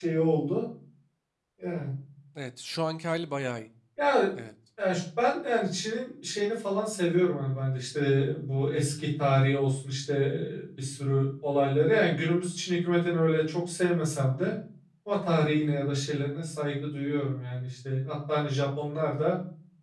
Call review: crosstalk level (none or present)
none